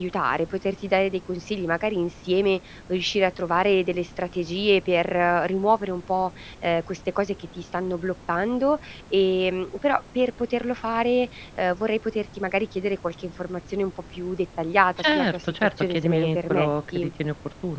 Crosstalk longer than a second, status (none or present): present